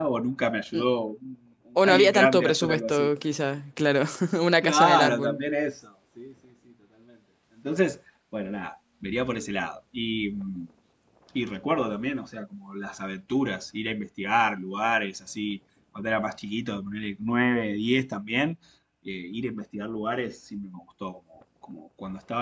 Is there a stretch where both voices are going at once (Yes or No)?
Yes